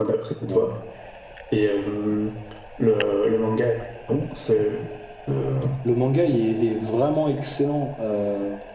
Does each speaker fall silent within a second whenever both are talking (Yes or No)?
Yes